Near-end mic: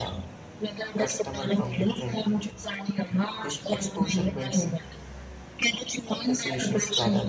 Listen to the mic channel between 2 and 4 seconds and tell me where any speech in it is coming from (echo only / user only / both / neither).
both